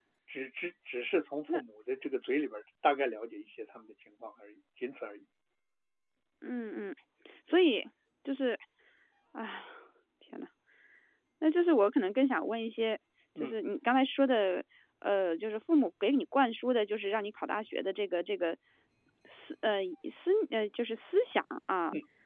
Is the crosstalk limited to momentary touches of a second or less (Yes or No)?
Yes